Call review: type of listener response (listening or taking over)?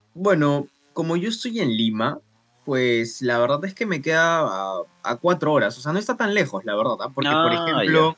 listening